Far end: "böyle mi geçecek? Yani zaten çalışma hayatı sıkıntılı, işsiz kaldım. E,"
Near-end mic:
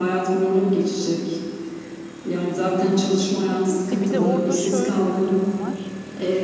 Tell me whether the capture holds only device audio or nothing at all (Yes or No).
No